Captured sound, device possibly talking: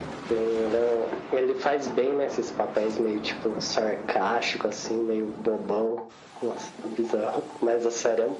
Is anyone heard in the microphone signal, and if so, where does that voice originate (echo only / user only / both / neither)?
echo only